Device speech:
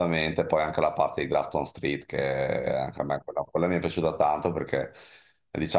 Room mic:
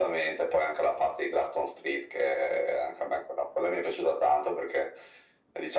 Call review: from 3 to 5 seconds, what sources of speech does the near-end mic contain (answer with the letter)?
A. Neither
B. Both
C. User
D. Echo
D